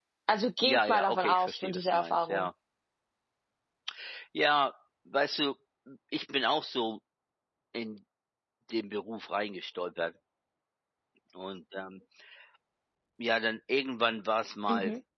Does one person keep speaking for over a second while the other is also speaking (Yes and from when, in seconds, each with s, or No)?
Yes, from 0.6 s